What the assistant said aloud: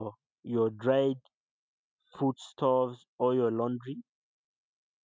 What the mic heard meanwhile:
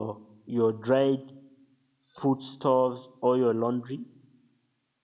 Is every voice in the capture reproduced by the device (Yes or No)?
Yes